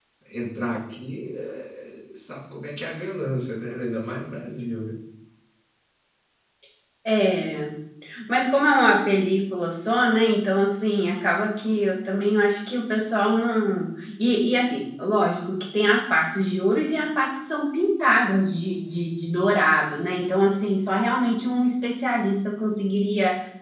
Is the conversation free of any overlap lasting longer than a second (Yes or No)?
Yes